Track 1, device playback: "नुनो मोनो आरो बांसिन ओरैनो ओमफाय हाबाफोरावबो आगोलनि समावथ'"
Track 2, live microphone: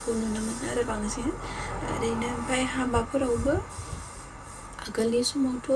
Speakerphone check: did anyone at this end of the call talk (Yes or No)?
No